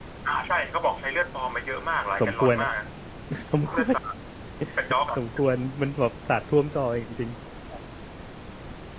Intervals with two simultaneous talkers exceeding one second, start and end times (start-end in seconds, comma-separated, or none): none